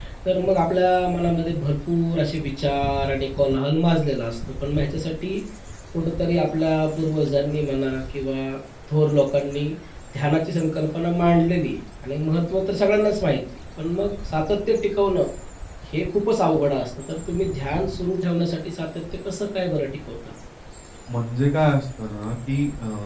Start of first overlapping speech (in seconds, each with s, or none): none